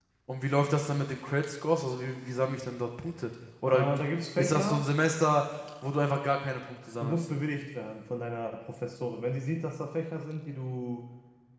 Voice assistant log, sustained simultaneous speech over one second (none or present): none